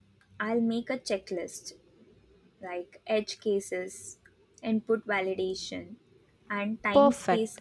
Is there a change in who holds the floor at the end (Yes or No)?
Yes